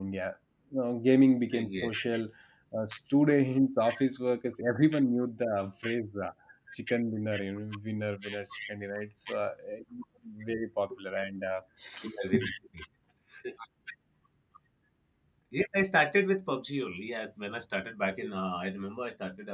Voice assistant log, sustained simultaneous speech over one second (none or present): none